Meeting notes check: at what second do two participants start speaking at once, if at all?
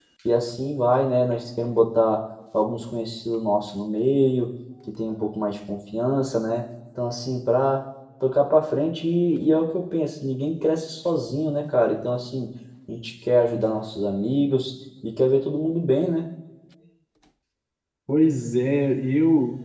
none

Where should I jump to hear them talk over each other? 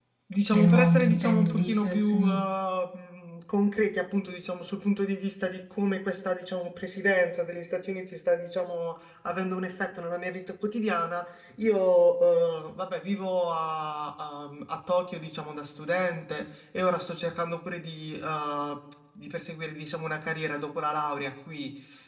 1 s

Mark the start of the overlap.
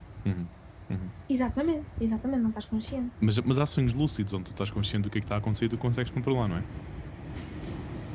none

